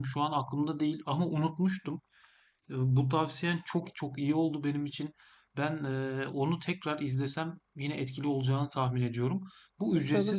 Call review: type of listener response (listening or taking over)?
taking over